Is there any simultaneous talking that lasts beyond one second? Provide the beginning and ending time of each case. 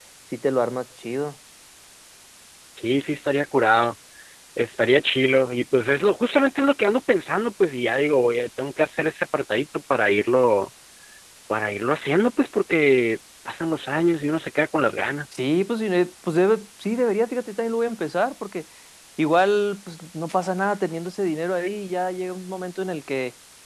none

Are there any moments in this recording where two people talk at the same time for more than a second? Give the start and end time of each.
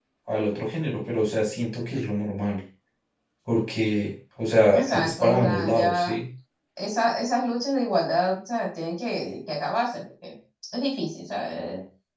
4.7-6.1

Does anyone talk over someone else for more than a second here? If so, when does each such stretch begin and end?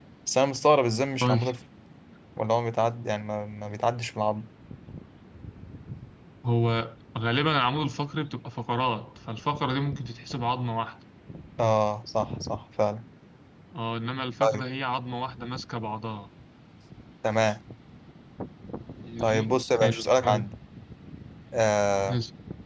19.2-20.5

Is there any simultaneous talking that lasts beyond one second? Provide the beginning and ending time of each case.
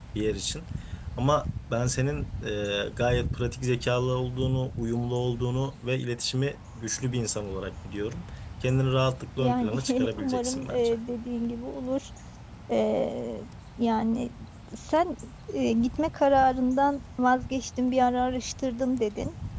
9.4-10.9

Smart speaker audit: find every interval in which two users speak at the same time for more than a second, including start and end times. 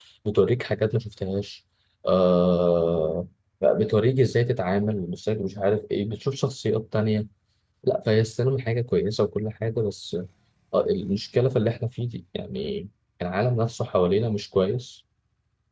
none

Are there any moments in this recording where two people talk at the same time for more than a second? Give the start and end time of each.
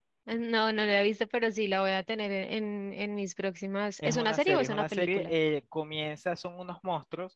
4.0-5.3

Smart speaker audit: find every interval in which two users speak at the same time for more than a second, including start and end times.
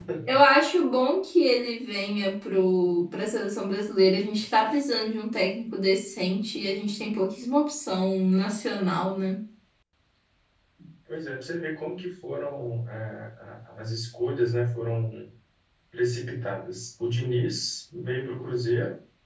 none

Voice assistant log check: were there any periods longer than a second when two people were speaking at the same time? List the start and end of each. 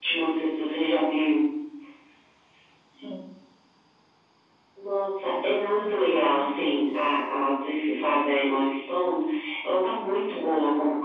5.4-6.8

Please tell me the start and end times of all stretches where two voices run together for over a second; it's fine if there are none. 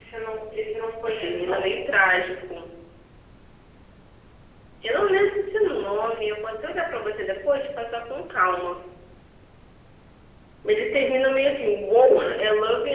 none

